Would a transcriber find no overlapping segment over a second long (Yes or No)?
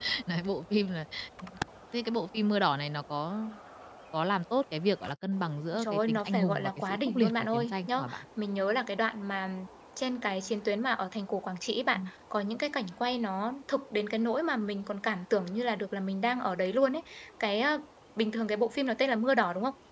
No